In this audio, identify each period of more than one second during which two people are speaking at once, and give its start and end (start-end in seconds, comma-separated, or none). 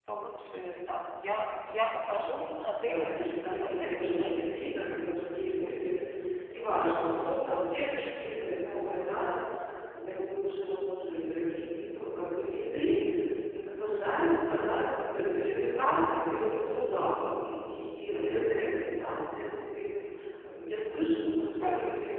2.7-4.8